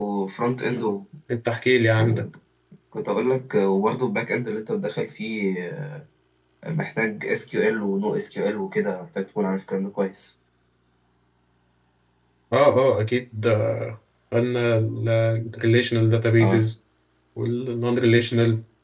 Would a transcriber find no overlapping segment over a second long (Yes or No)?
Yes